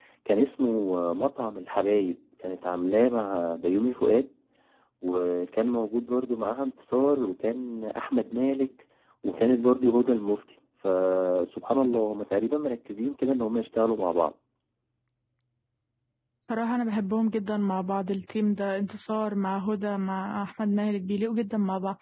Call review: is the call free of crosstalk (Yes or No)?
Yes